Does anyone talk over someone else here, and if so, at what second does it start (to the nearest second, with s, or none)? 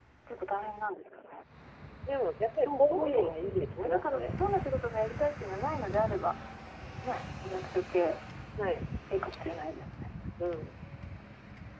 3 s